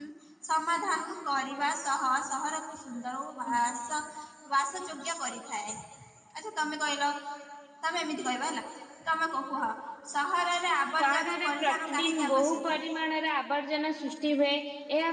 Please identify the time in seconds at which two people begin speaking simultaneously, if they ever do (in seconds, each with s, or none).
11.0 s